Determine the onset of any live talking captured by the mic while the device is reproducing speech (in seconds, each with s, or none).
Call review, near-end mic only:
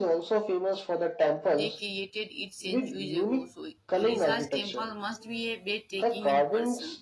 1.5 s